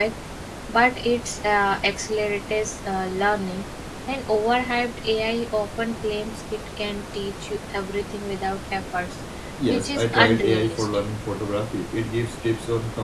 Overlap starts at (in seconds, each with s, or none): 9.7 s